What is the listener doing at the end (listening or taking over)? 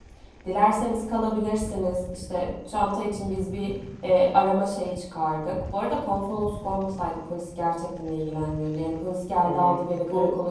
taking over